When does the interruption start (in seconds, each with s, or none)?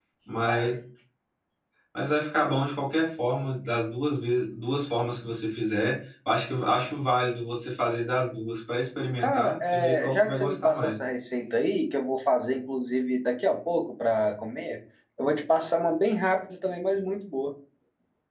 9.2 s